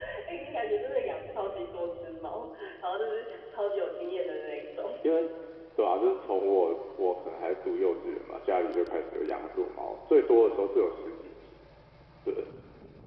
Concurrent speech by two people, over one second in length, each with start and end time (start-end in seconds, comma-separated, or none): none